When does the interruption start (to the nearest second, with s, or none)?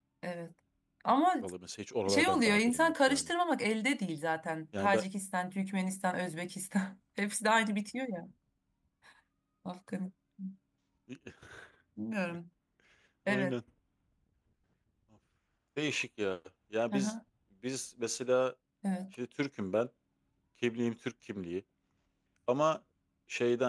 2 s